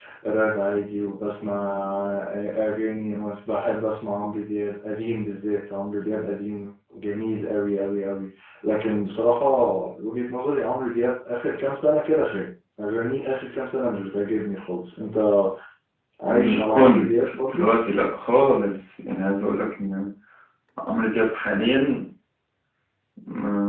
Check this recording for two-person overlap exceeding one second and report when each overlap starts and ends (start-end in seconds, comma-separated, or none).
16.3-17.7